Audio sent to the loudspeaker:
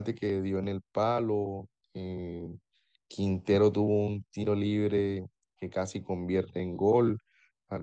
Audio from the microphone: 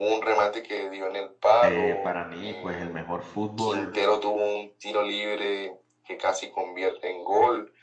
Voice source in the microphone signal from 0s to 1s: echo only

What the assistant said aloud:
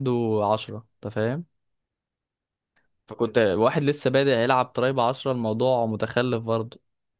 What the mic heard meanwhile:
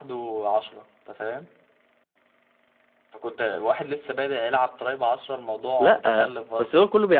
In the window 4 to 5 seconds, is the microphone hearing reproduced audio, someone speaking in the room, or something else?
echo only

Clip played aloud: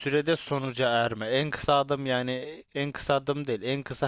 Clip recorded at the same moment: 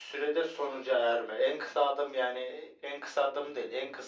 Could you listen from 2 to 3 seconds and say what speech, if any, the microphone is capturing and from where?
echo only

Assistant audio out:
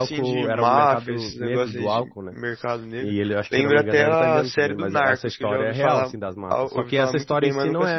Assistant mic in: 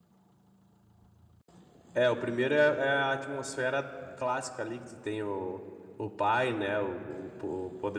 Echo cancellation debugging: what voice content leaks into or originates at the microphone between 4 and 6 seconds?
user only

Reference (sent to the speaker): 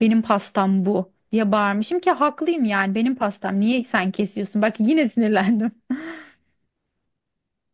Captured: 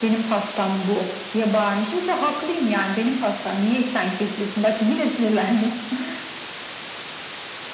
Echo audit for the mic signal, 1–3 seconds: echo only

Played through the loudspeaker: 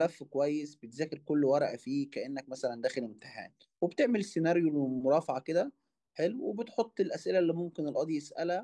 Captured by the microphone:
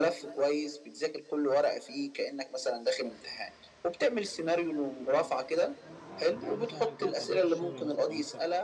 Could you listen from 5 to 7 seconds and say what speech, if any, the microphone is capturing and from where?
both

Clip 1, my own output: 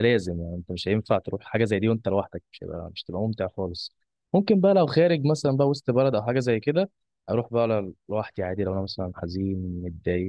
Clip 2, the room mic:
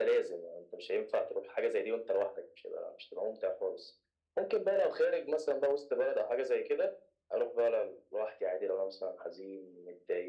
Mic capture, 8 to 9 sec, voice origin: echo only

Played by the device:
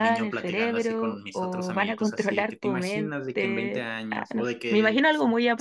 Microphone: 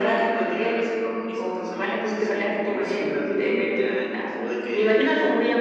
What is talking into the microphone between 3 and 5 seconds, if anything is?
echo only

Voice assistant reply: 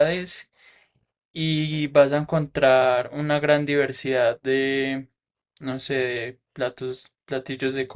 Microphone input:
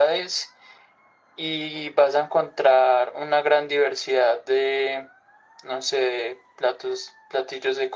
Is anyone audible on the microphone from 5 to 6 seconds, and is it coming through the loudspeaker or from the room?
echo only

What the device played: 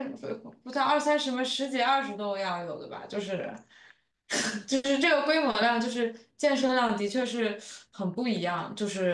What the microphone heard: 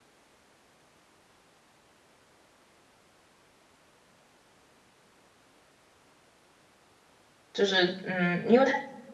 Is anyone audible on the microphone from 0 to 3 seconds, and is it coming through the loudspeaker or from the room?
neither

